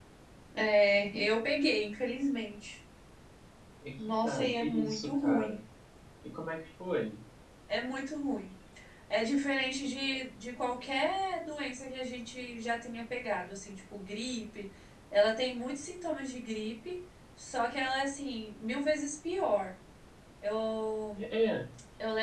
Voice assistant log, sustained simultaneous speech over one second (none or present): present